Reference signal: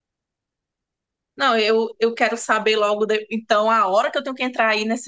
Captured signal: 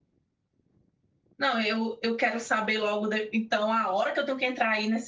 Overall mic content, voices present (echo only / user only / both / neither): echo only